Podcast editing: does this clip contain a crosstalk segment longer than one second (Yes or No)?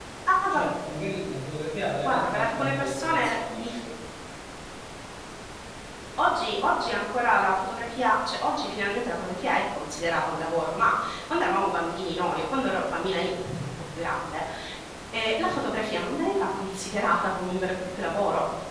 Yes